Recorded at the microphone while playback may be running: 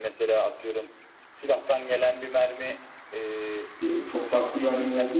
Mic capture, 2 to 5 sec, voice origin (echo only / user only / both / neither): both